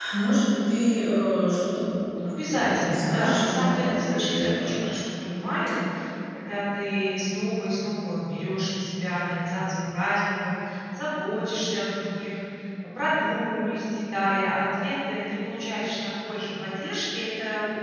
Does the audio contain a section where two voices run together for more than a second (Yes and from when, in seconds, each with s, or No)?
Yes, from 2.2 s